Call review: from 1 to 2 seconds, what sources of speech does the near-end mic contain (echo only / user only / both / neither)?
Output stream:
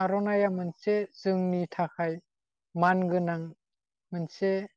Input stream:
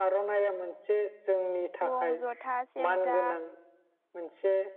both